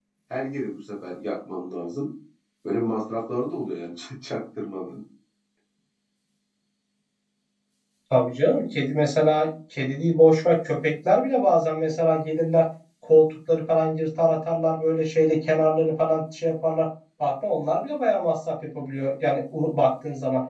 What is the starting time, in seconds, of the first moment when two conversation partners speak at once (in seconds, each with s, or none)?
none